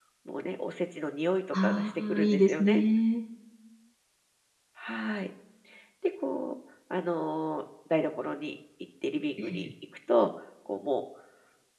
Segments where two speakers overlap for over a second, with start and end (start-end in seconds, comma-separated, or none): 1.6-2.8